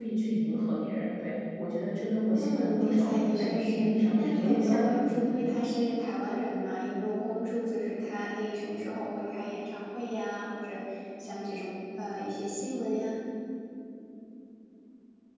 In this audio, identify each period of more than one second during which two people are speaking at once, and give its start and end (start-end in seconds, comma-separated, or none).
2.3-5.3